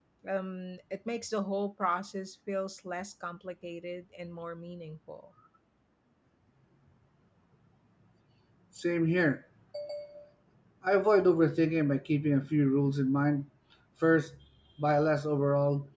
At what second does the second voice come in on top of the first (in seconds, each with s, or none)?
none